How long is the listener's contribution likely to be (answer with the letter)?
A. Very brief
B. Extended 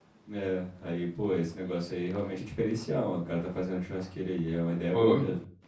B